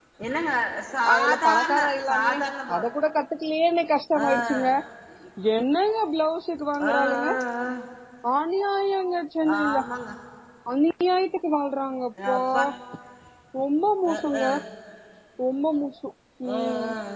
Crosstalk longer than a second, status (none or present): present